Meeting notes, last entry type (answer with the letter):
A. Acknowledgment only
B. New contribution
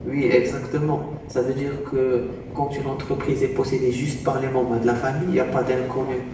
A